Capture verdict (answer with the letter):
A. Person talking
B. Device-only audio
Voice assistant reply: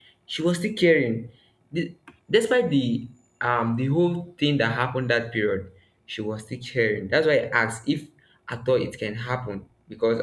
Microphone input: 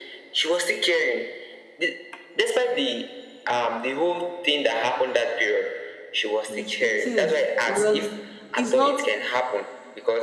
A